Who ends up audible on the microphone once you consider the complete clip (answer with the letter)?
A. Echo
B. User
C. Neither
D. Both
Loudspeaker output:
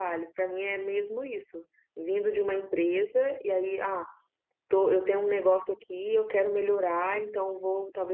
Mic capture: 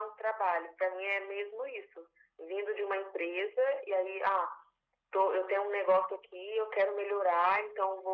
A